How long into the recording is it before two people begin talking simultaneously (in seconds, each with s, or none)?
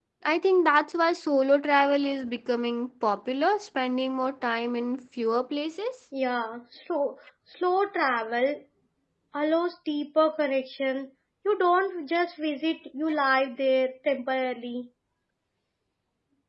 none